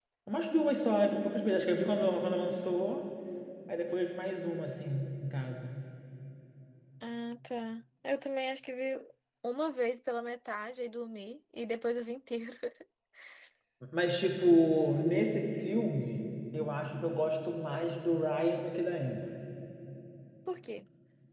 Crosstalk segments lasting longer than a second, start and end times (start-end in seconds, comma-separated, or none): none